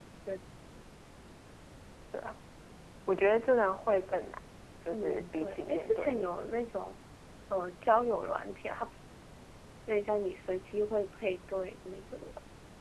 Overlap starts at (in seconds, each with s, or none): 4.9 s